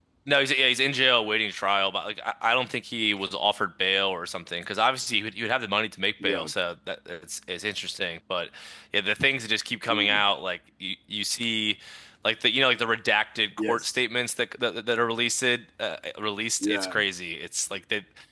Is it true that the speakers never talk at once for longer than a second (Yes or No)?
Yes